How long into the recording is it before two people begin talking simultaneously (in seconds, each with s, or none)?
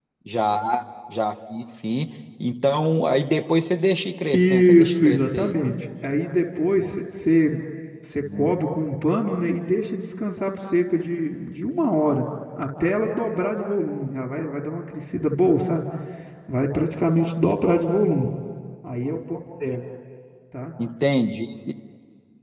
4.3 s